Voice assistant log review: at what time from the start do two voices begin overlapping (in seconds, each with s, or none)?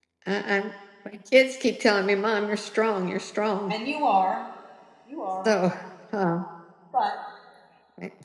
none